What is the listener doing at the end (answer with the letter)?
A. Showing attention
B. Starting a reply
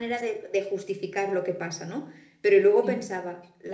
A